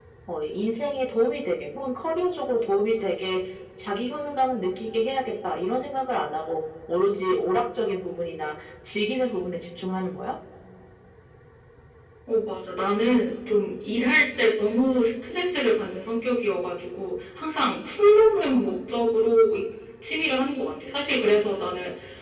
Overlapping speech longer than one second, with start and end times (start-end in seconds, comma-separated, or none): none